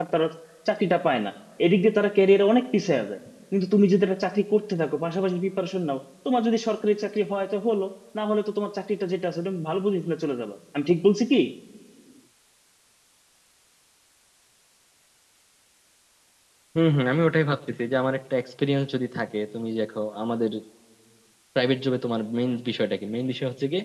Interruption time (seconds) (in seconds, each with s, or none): none